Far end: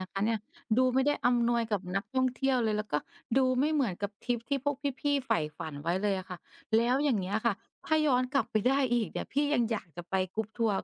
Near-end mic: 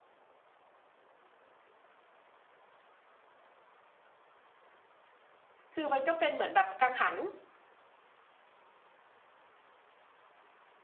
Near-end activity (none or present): present